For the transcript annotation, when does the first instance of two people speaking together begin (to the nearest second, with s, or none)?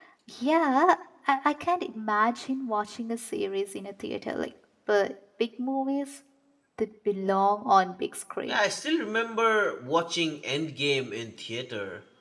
none